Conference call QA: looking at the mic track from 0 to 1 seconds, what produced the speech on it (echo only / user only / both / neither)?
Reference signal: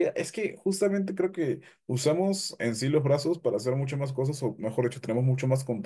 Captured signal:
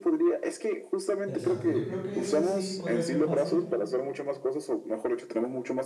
echo only